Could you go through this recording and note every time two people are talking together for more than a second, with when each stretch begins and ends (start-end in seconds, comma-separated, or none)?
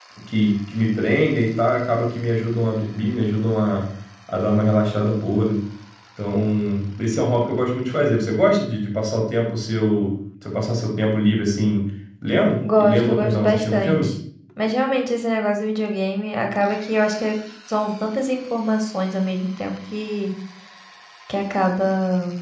12.8-14.1